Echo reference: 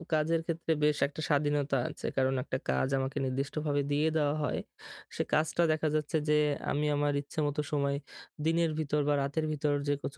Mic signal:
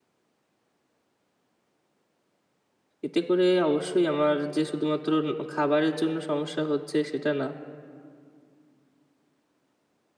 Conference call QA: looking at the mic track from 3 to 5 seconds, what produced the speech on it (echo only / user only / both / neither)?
user only